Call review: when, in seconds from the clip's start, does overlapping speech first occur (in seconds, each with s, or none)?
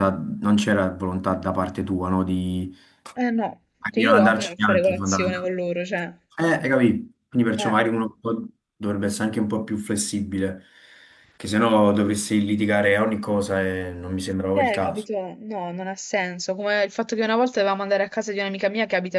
3.9 s